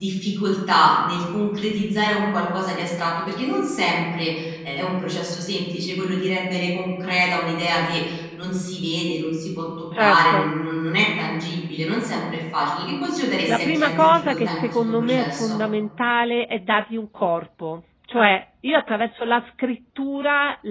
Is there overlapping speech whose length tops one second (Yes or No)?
Yes